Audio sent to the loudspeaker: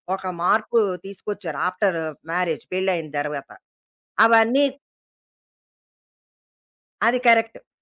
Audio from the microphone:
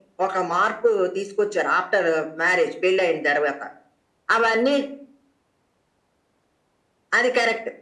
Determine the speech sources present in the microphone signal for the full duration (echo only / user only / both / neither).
echo only